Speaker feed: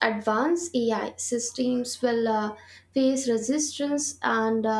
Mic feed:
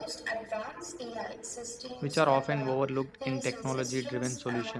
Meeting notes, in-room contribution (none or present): present